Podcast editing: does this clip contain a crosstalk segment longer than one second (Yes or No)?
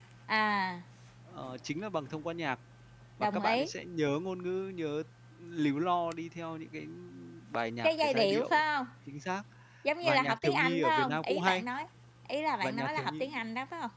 Yes